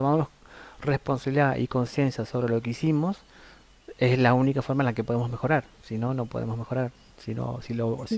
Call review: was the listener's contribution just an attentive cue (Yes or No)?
Yes